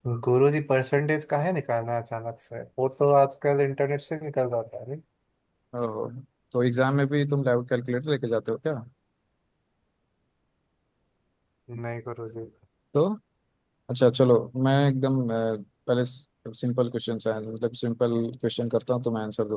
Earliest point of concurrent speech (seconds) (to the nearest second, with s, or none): none